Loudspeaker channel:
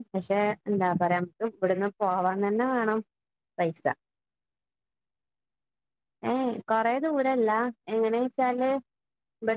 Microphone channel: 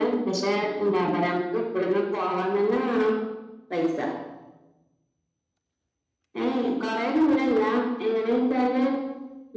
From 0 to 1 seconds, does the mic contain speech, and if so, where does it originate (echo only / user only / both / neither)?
echo only